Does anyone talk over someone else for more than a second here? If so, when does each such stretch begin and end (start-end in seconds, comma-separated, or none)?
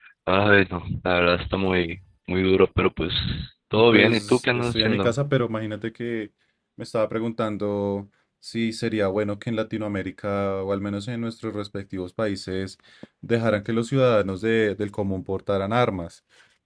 3.9-5.2